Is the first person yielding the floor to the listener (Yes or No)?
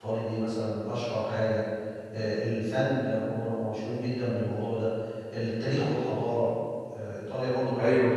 Yes